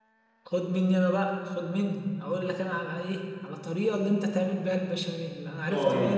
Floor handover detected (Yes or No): Yes